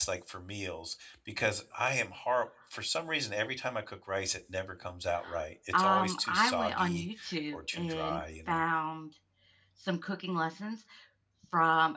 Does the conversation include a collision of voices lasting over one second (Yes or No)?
Yes